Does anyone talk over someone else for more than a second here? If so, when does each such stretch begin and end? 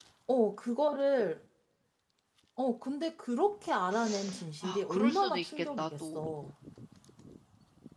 4.6-6.3

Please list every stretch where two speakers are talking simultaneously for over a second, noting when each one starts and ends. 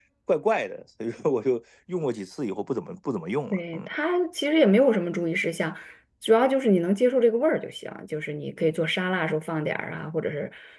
none

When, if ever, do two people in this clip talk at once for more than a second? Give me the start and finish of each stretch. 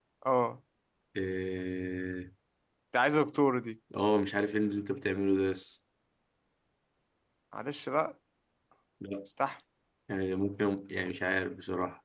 none

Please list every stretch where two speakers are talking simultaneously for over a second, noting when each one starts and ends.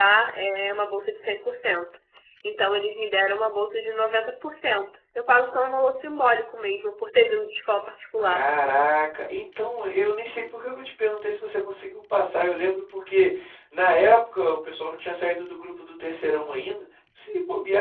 none

